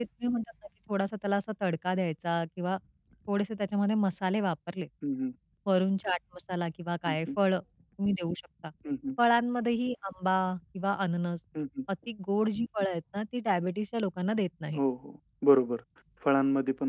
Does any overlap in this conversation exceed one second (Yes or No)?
No